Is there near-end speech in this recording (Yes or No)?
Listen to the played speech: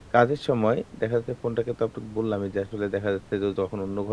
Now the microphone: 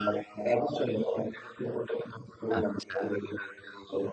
Yes